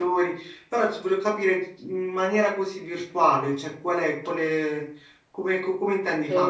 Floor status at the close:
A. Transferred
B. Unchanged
A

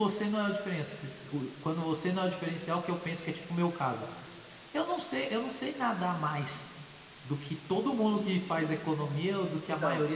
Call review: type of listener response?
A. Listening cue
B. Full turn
A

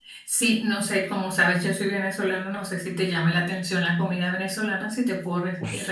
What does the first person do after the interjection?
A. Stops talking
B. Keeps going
A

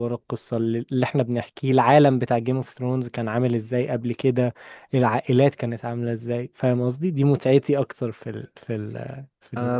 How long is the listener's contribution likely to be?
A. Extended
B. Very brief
A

